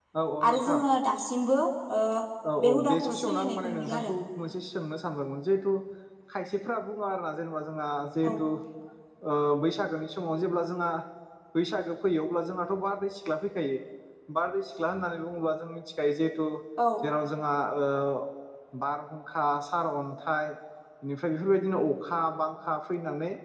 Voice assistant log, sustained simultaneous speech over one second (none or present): present